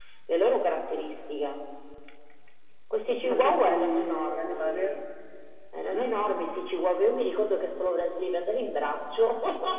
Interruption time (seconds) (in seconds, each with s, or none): 3.2 s